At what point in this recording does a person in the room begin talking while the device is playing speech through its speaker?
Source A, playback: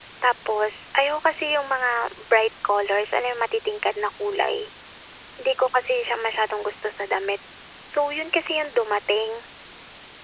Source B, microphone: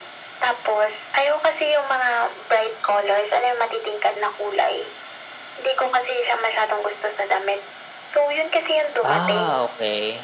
9.0 s

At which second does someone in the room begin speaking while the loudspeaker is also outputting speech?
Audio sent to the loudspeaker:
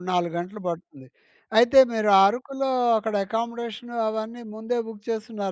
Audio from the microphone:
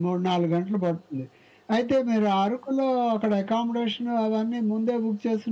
none

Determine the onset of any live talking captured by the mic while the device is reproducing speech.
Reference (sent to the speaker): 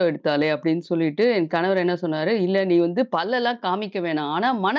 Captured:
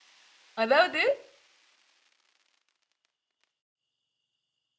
0.6 s

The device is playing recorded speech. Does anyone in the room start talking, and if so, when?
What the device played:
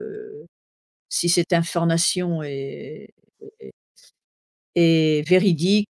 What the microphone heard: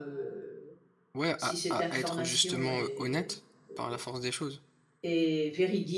1.1 s

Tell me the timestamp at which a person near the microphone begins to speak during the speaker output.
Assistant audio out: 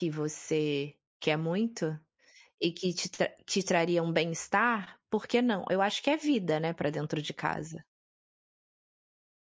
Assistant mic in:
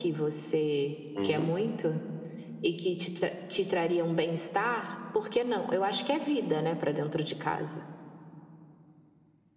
1.2 s

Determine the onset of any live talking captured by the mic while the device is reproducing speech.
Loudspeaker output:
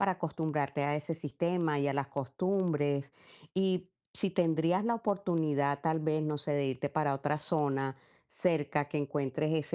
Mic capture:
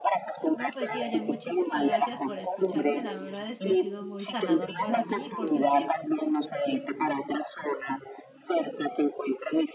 0.5 s

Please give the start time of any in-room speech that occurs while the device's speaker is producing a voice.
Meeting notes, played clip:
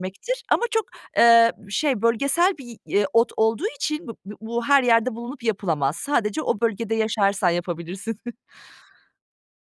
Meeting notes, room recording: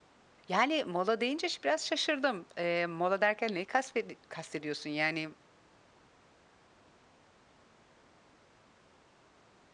0.5 s

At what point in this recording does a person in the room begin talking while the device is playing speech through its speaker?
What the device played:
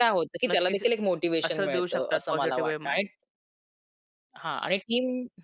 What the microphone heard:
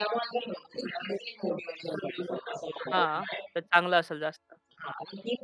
2.9 s

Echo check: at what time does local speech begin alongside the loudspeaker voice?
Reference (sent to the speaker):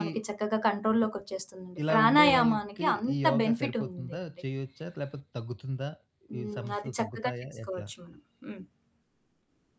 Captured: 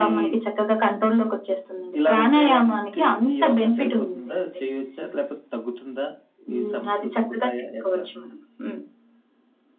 none

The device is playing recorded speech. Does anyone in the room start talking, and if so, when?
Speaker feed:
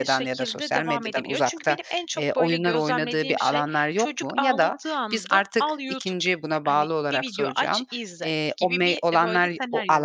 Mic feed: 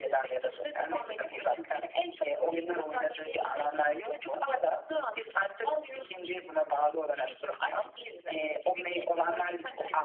none

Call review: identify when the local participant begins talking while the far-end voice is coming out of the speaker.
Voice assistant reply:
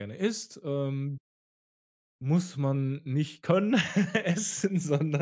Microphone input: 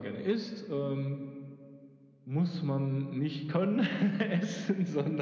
none

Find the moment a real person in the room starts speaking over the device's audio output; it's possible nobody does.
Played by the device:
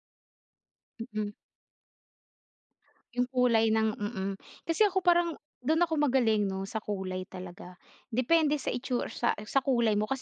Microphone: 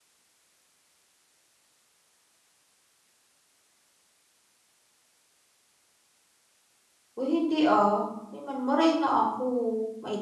7.2 s

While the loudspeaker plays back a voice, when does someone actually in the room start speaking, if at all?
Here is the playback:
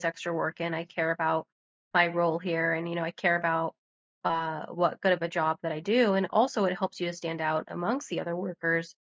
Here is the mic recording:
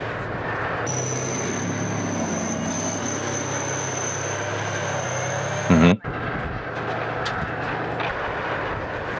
5.7 s

